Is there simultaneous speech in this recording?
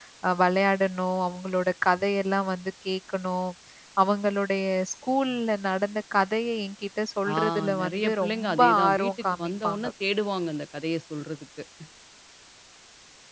Yes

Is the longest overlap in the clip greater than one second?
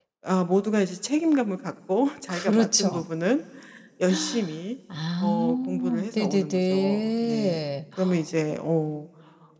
Yes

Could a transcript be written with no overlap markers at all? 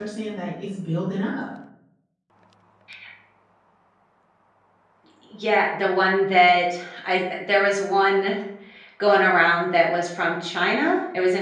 Yes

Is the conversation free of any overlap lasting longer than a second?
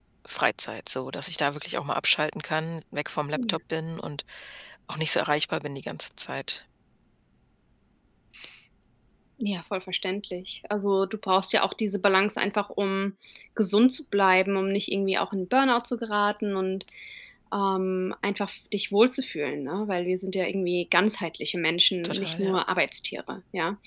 Yes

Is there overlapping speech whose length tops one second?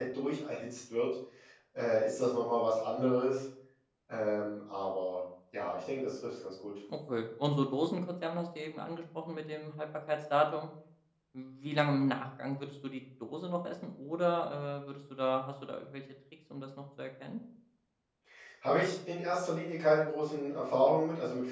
No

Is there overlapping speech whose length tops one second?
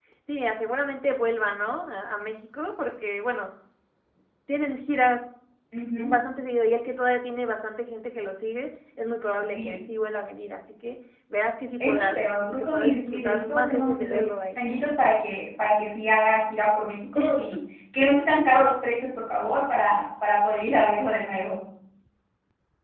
Yes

